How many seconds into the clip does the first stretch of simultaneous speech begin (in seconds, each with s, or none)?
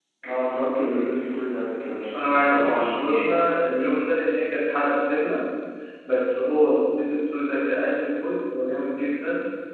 2.1 s